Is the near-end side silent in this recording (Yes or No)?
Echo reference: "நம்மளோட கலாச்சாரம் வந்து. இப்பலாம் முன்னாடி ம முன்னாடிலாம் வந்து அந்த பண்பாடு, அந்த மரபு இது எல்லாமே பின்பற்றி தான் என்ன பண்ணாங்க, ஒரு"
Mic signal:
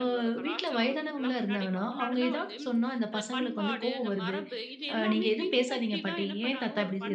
No